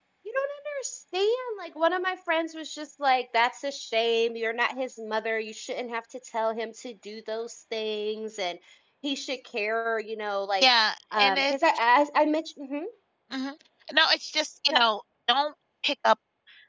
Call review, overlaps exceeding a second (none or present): none